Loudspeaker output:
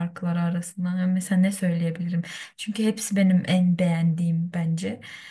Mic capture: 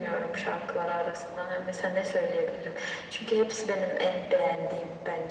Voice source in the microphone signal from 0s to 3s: echo only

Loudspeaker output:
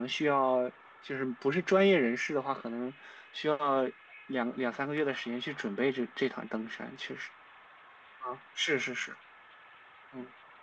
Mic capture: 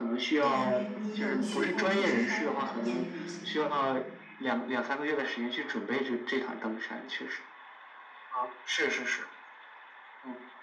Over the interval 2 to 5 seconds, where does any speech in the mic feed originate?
both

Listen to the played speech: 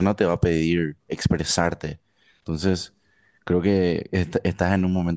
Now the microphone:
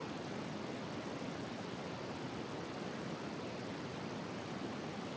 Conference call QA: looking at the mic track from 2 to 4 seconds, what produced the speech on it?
neither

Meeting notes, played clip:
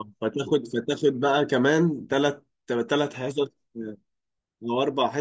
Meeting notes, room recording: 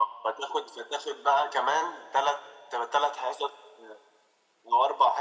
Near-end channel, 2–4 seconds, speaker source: echo only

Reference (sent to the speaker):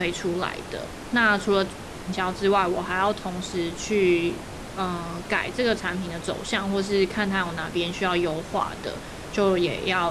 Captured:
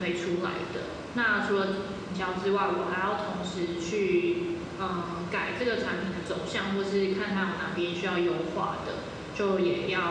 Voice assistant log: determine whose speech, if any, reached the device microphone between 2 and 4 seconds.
echo only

